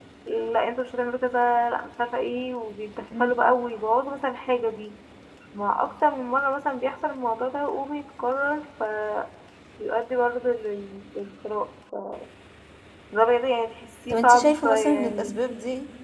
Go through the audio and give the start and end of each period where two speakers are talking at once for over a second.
14.1-15.4

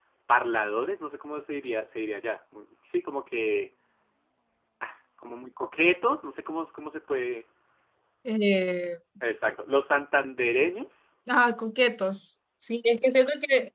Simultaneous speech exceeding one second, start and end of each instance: none

